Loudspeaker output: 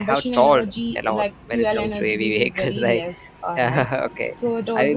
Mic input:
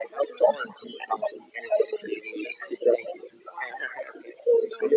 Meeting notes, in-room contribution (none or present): none